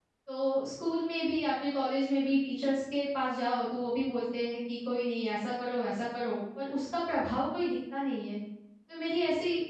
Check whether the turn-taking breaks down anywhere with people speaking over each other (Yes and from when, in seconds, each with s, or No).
No